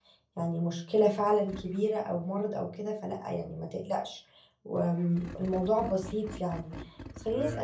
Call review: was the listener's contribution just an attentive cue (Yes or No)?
Yes